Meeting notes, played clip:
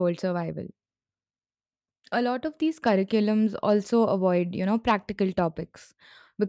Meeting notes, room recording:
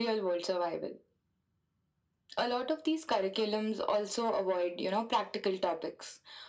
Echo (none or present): present